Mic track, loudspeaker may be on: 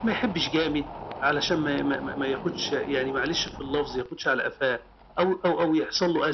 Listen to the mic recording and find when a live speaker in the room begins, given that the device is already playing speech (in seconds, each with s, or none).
none